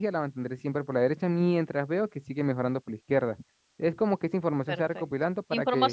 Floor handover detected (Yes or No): Yes